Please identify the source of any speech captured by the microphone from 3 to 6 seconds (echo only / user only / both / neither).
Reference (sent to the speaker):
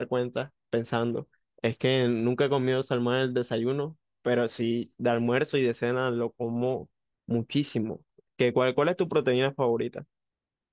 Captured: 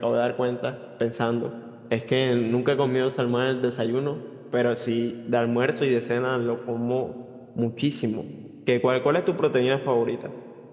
echo only